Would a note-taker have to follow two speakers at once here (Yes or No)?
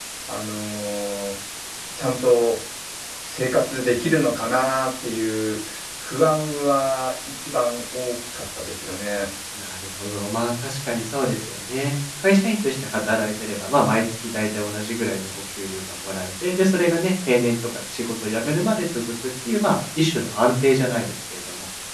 No